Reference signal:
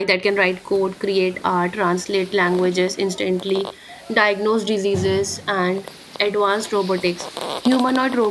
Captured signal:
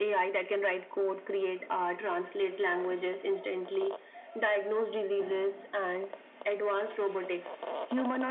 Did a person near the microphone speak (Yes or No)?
No